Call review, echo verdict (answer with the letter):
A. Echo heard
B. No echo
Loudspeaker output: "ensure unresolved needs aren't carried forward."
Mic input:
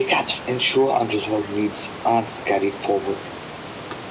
A